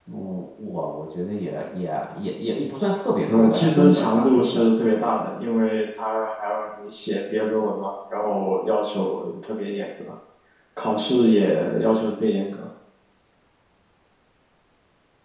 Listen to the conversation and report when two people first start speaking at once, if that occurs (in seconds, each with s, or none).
3.2 s